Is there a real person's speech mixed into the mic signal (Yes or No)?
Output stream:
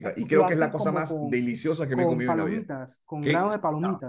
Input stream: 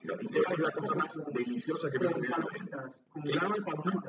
No